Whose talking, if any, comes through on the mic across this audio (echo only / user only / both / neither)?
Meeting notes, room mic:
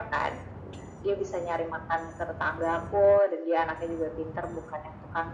echo only